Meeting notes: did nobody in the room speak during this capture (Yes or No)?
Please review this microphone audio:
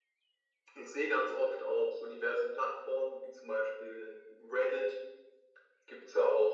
Yes